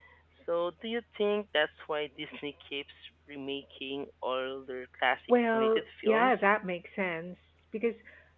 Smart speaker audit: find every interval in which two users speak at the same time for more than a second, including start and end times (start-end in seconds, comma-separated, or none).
5.3-6.5